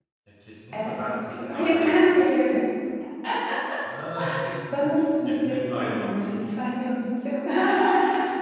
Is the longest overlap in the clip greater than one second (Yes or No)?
Yes